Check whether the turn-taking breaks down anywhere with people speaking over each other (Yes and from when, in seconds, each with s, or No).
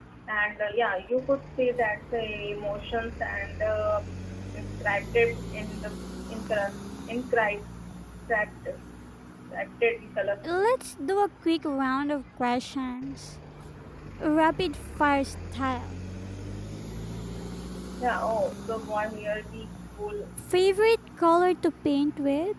No